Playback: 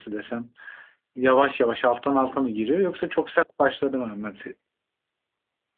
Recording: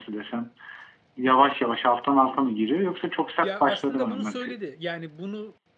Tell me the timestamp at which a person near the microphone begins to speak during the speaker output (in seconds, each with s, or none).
3.4 s